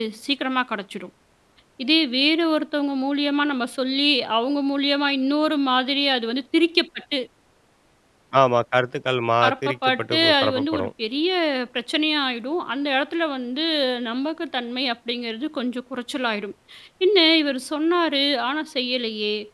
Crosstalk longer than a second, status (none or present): present